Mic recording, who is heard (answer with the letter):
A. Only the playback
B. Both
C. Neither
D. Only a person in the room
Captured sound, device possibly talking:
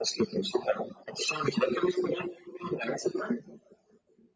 A